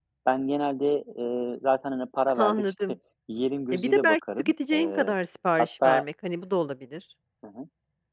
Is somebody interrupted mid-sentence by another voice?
Yes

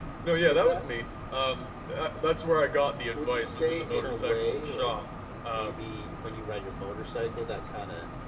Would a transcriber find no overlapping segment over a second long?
No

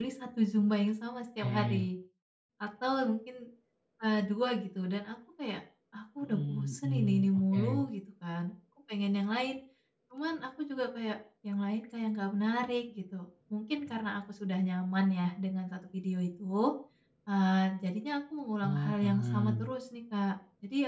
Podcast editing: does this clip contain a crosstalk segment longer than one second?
Yes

